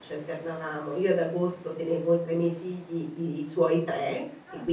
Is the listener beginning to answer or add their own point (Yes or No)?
No